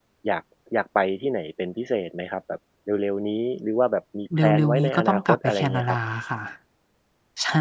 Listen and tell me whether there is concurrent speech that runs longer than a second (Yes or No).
Yes